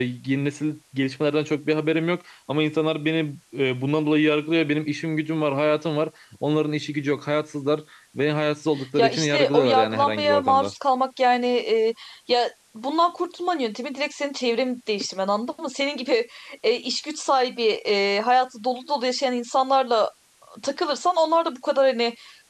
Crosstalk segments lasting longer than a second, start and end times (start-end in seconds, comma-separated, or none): 9.0-10.7